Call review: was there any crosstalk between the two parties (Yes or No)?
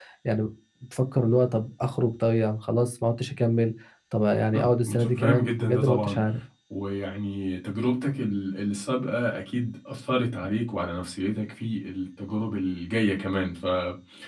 Yes